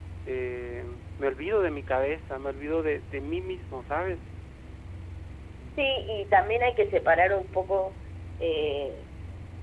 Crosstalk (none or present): none